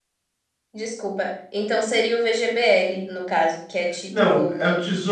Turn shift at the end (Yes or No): Yes